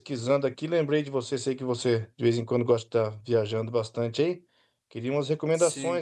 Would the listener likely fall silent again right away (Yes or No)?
Yes